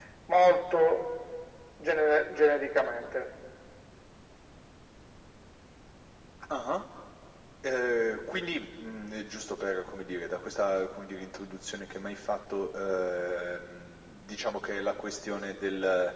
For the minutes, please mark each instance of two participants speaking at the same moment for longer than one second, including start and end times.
none

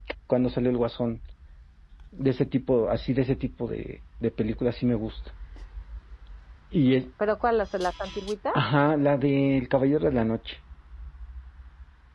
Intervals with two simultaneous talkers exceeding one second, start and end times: none

